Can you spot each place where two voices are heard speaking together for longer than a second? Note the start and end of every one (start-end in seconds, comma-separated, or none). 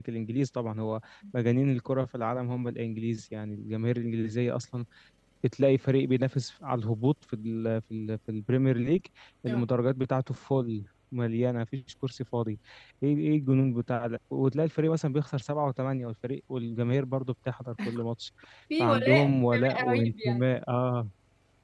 18.8-20.4